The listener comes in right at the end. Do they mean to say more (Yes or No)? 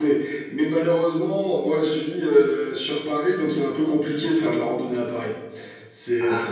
Yes